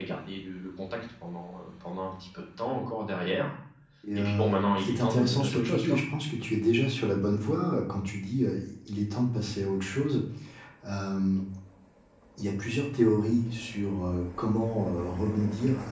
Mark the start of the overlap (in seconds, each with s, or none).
4.2 s